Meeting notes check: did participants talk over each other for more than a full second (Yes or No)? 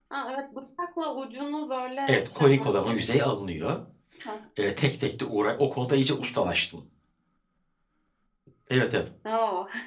Yes